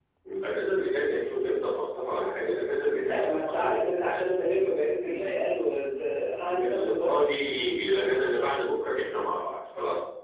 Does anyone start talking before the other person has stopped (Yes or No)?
Yes